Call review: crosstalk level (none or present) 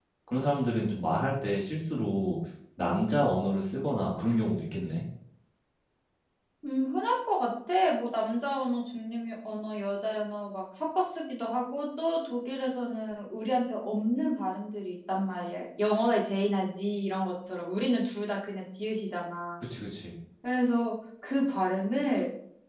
none